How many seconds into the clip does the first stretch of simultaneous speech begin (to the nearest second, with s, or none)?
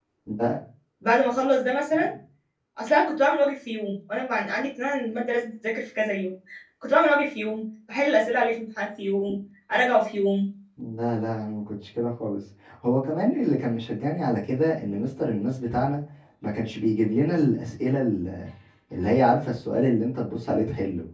none